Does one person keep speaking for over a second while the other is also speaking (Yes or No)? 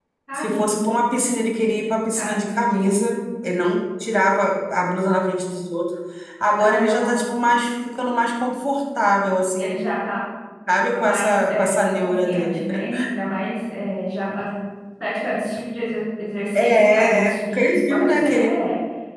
Yes